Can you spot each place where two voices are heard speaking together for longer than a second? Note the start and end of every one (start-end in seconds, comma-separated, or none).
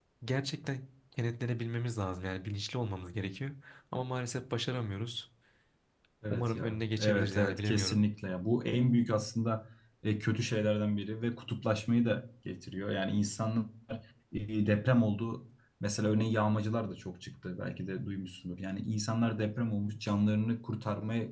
6.3-8.0